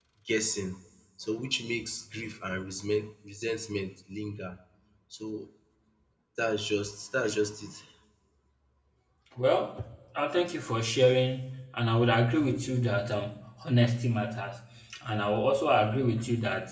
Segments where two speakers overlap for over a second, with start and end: none

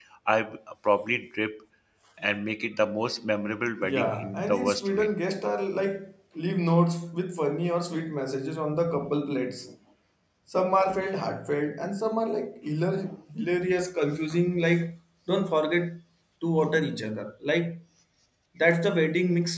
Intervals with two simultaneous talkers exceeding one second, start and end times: 3.8-5.1

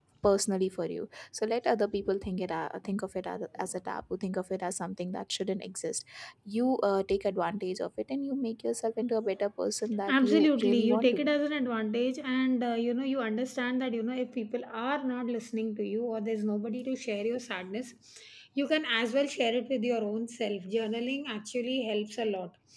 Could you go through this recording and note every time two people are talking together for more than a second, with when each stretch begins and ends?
10.1-11.3

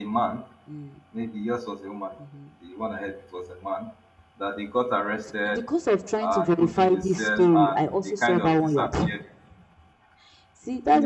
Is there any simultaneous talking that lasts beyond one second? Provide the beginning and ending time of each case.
6.2-9.1

